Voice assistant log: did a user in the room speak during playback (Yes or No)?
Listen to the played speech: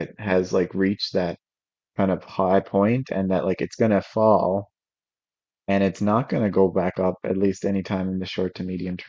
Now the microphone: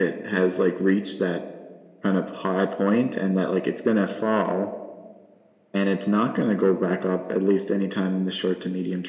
No